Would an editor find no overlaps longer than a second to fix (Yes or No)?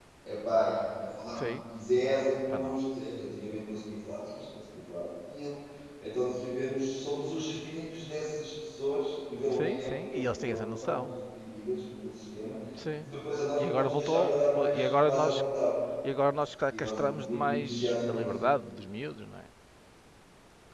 No